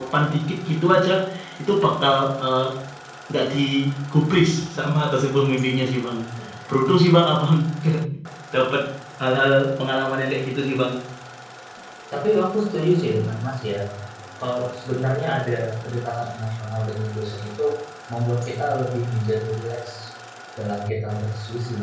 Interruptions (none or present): none